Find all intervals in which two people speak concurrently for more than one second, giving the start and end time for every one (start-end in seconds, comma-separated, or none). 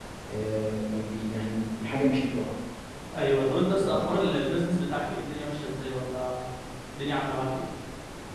none